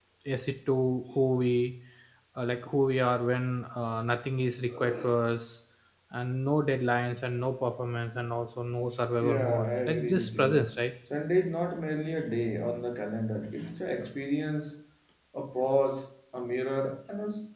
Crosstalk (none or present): present